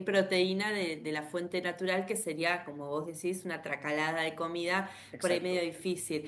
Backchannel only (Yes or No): Yes